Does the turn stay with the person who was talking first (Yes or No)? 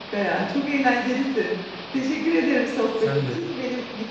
Yes